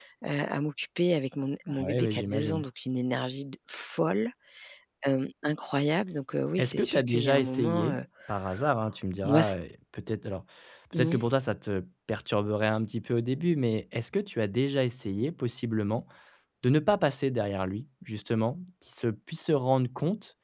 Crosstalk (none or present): present